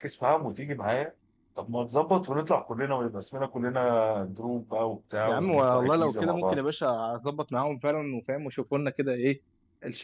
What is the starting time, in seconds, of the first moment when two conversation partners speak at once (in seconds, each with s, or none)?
5.2 s